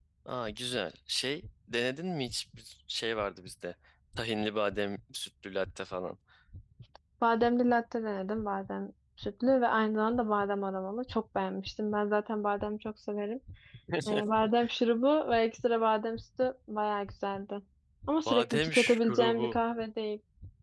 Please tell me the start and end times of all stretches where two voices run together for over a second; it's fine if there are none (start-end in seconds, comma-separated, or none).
18.3-19.6